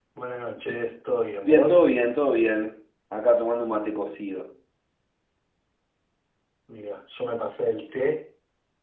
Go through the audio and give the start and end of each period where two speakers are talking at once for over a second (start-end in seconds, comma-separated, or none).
none